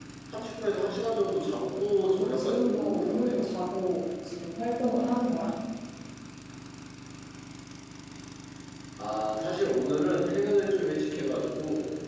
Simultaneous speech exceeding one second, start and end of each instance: 1.9-3.4

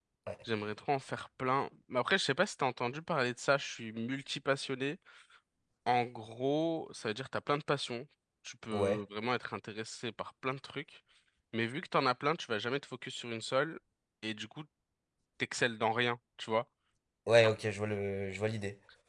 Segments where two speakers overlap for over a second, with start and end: none

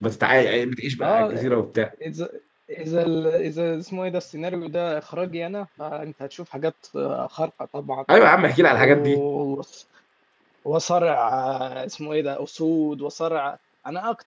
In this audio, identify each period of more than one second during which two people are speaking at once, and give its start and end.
none

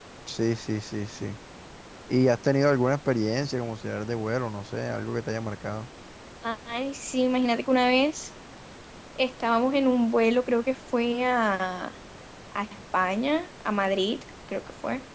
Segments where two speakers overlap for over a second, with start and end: none

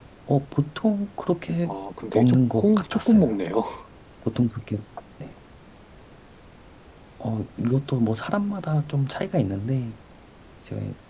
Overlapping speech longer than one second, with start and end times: 2.1-3.4

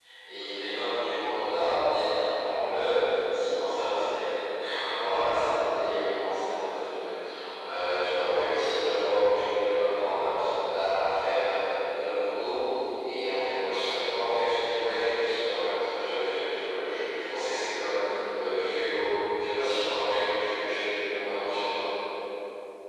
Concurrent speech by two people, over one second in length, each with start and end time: none

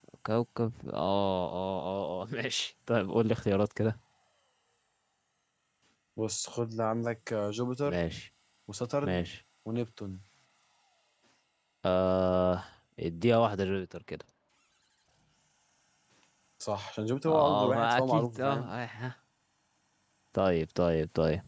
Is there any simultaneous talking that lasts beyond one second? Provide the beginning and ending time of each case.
17.3-18.7

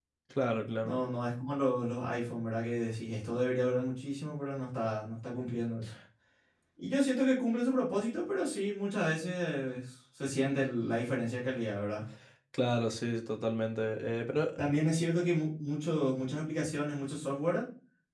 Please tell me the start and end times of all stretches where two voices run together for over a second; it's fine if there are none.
none

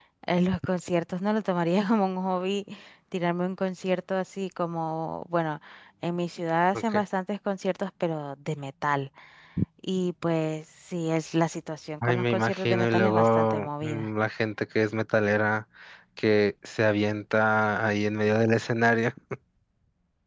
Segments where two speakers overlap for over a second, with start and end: 12.0-14.1

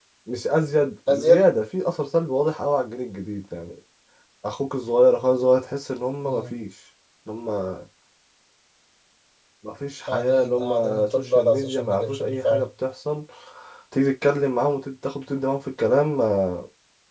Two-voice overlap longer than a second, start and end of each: 10.1-12.7

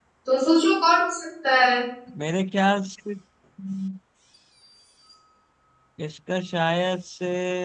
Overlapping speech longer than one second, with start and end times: none

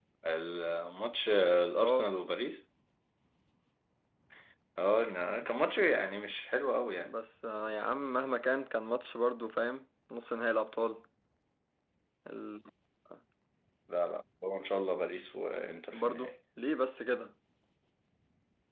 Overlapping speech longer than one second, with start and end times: none

